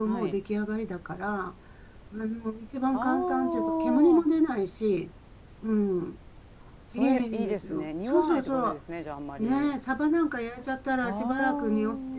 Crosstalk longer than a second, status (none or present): present